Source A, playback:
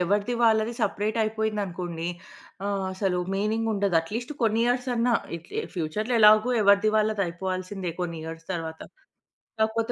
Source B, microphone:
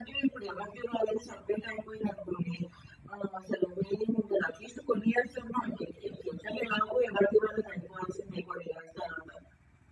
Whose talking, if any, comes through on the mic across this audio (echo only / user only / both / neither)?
echo only